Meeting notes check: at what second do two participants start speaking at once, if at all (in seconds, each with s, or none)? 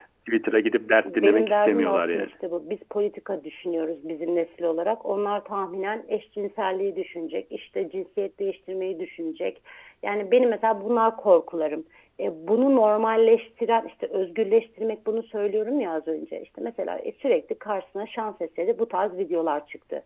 1.1 s